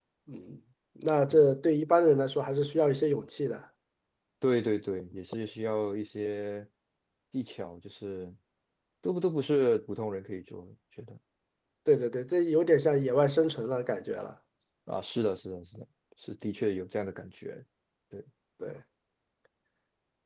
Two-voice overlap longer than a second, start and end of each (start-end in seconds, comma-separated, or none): none